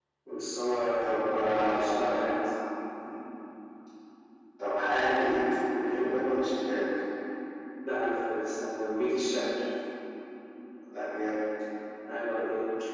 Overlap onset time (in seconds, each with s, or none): 1.0 s